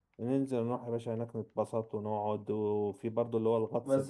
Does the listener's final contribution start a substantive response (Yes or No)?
Yes